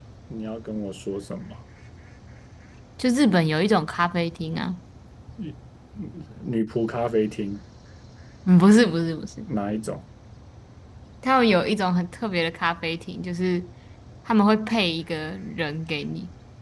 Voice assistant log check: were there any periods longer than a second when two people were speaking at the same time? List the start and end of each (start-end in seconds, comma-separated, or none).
none